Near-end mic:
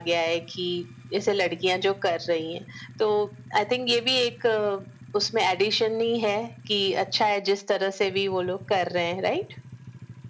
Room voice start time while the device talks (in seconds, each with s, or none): none